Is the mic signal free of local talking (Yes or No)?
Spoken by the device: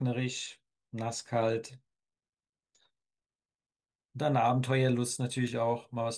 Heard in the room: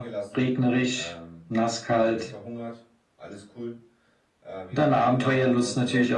No